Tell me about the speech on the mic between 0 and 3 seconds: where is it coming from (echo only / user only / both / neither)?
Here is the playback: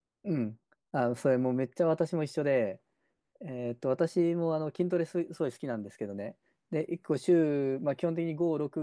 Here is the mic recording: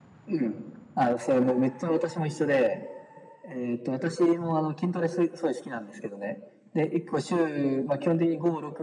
echo only